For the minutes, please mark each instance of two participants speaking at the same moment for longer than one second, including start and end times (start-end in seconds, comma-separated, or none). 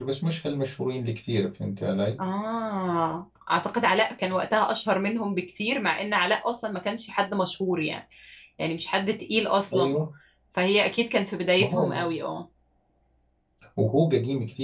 none